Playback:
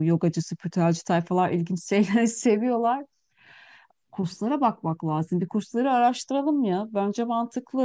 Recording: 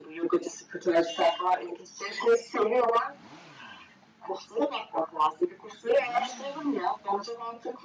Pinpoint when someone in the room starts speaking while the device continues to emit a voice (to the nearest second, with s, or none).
none